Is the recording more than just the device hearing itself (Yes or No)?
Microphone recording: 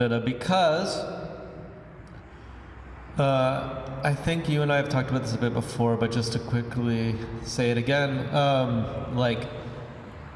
Yes